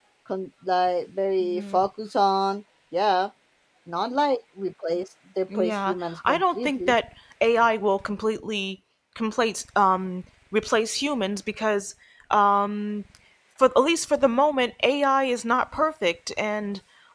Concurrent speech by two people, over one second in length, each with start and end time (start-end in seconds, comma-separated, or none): 5.6-6.9